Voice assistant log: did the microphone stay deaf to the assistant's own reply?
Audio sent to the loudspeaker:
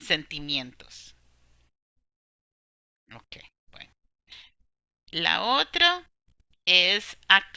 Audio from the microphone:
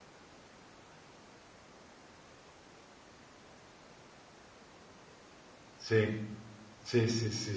Yes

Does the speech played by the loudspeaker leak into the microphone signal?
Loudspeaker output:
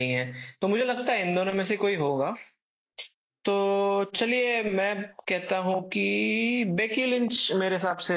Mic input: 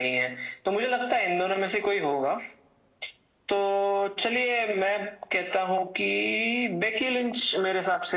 Yes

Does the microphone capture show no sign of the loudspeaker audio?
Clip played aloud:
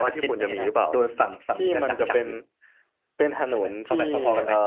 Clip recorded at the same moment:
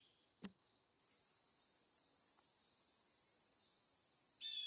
Yes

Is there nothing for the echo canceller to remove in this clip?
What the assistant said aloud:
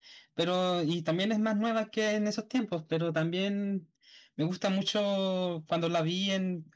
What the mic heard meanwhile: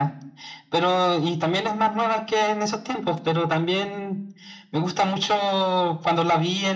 No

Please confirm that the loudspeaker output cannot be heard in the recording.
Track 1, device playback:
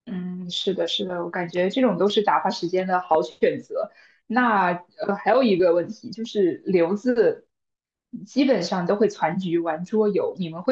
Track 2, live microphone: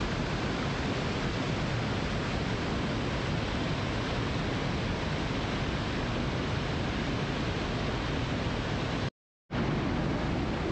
Yes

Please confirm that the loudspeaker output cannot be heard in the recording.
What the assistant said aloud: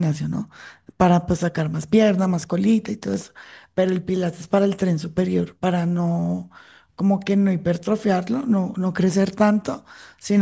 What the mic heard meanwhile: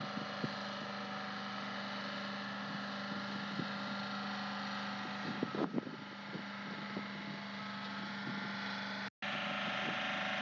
Yes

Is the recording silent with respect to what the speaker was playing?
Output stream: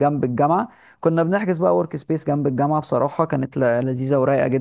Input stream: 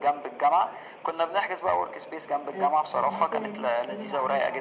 No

